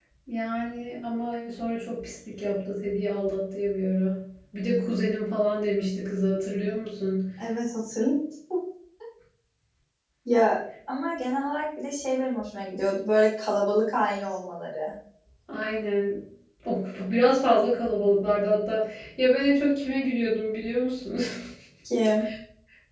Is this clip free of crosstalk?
Yes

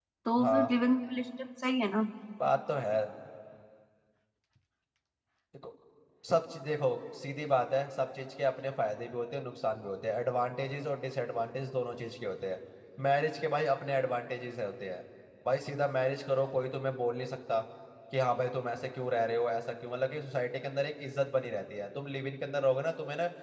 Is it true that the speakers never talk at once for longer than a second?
Yes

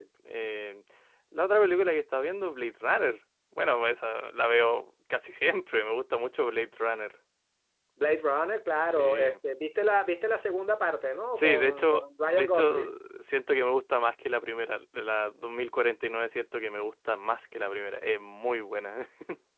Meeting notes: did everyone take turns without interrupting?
No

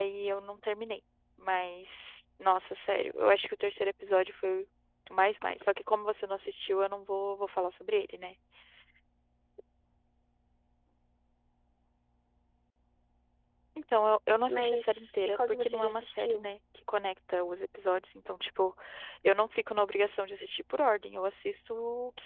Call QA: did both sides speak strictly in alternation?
No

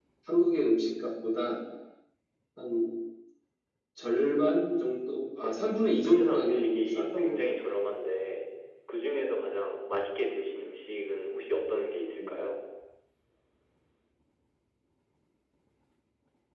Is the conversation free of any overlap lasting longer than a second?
No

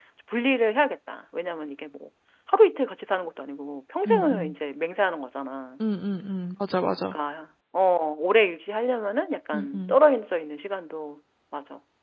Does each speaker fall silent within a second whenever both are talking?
Yes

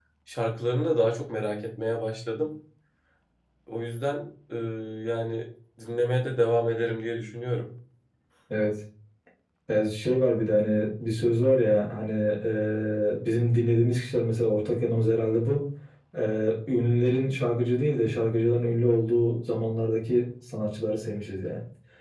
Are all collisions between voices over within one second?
Yes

